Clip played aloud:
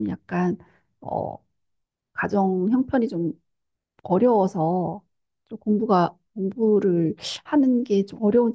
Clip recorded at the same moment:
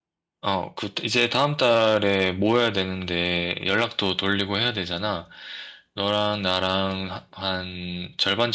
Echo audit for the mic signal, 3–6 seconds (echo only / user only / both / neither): user only